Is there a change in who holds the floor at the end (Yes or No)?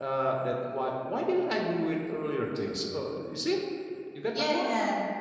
Yes